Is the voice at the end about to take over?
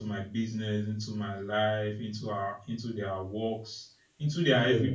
No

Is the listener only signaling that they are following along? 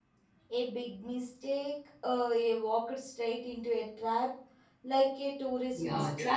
No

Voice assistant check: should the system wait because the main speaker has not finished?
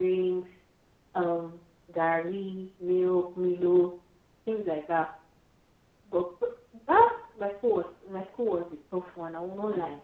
No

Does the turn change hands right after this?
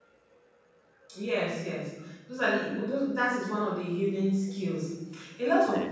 No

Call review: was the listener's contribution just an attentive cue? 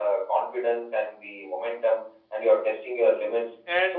Yes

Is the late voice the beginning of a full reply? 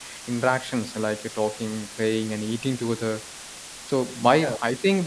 No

